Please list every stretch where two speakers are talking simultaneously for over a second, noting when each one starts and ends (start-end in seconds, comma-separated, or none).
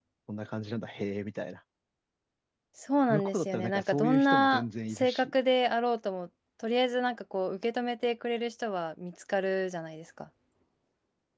3.1-5.3